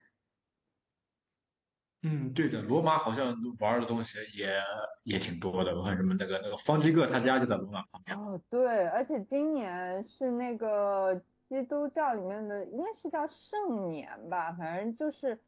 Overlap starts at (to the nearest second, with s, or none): none